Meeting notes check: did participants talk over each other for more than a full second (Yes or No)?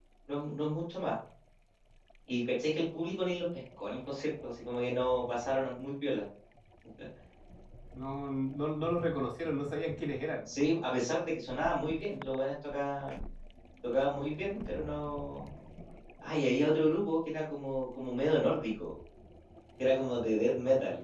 No